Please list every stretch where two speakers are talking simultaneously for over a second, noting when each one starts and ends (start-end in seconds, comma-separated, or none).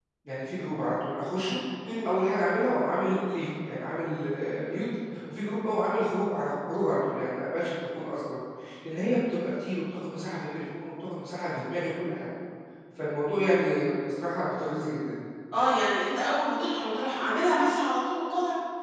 none